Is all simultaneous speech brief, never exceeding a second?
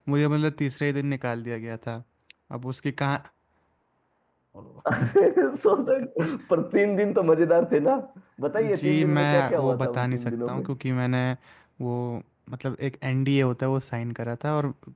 No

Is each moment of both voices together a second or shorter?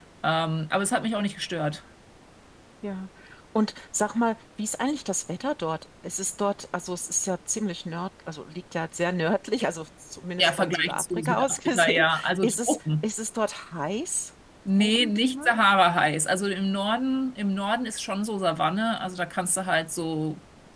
No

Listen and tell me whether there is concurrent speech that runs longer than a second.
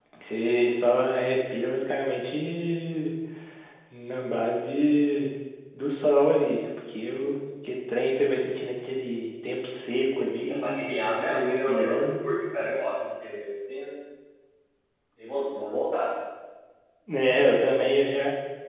Yes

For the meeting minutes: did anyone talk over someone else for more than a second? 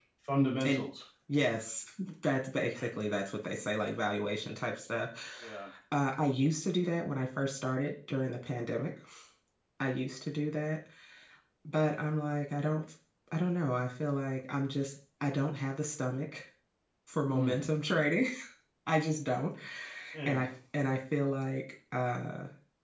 No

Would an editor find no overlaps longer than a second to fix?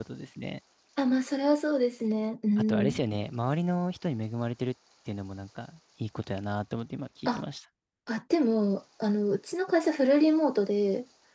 Yes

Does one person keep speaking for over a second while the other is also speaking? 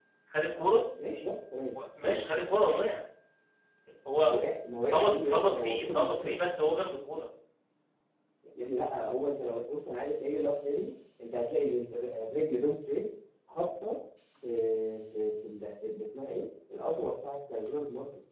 Yes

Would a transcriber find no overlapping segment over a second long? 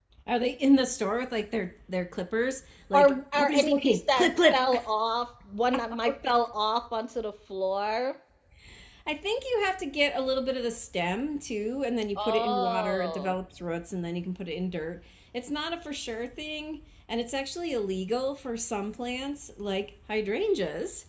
No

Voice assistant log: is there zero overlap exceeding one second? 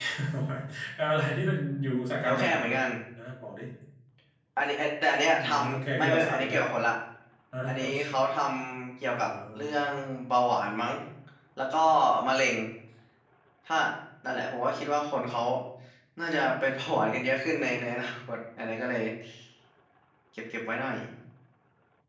No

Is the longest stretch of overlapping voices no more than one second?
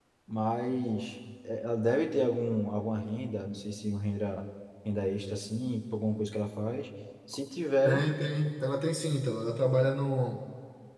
Yes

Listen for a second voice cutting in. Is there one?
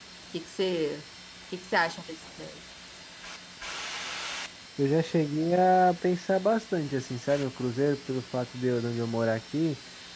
No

